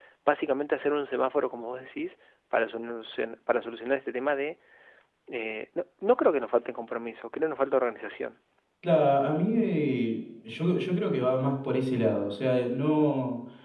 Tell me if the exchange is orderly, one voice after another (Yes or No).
Yes